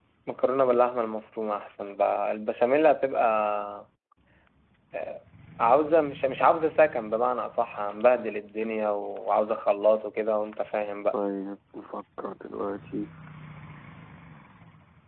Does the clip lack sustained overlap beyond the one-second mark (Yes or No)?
Yes